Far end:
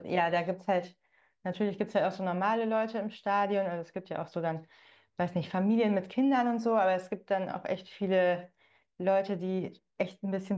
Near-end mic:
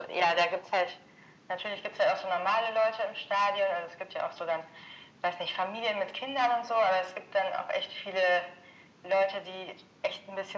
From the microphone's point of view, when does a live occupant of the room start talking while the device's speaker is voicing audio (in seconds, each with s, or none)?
none